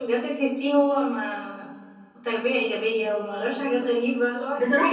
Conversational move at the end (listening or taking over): taking over